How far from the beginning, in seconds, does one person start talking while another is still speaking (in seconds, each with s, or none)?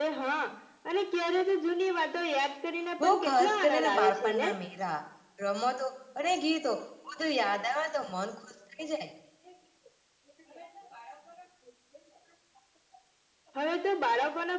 3.0 s